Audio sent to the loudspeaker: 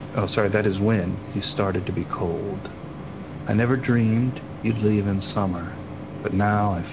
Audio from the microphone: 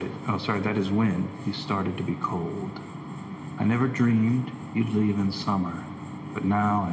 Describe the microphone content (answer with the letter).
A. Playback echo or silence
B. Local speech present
A